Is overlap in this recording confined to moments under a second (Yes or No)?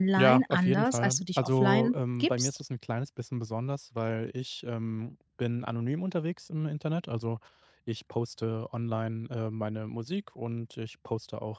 No